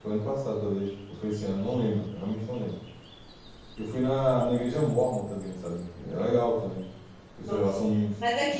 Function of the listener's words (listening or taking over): taking over